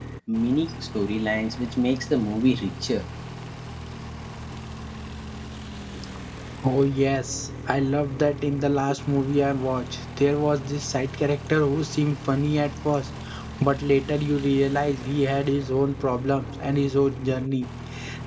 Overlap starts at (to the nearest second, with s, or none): none